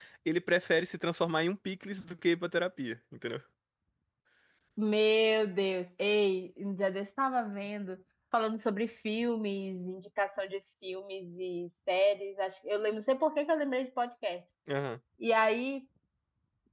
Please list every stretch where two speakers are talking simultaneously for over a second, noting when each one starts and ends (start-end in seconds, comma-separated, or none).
none